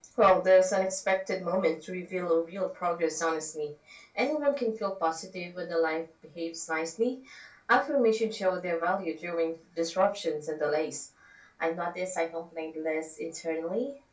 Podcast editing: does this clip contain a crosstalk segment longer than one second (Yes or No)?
No